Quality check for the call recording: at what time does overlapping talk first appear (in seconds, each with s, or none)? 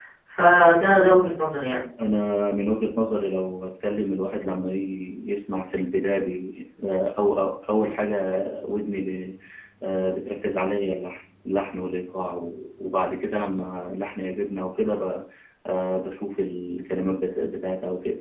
none